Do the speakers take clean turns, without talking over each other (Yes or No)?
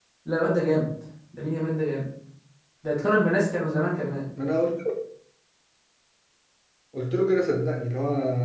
Yes